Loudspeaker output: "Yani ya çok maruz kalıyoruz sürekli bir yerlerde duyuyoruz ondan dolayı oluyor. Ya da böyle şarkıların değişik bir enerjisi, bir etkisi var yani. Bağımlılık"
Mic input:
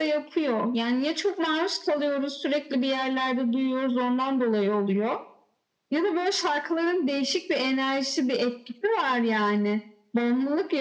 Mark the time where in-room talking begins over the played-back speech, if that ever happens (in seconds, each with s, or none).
none